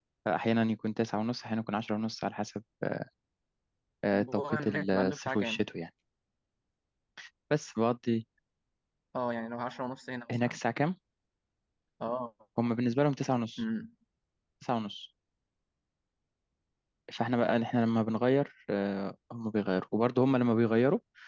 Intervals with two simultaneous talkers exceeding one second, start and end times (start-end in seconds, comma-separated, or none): 4.1-5.6